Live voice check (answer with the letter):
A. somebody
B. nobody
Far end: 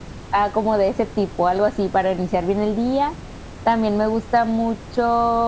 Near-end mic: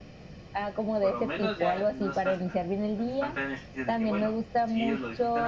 A